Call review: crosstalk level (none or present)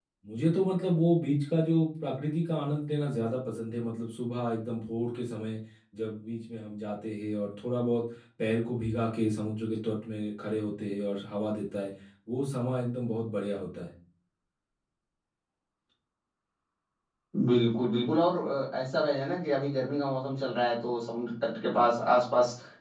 none